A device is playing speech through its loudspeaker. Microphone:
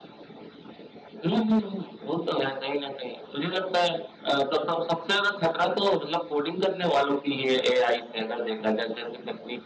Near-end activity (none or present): none